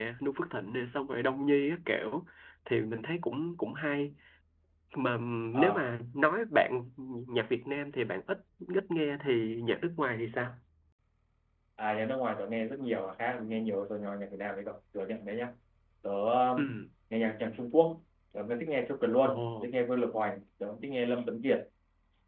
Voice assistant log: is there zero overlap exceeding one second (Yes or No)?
Yes